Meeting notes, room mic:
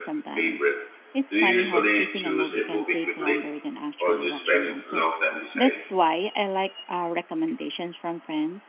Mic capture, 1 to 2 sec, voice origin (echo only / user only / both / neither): both